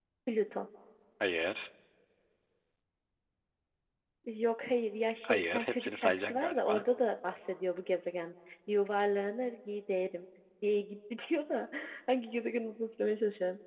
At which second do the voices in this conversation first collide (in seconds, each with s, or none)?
5.2 s